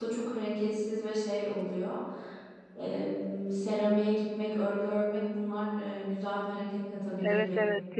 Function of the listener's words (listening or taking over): taking over